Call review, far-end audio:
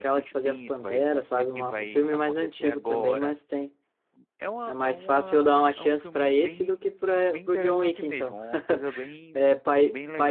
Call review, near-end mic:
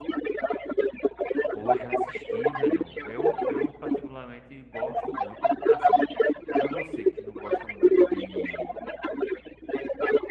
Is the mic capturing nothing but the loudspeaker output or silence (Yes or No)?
No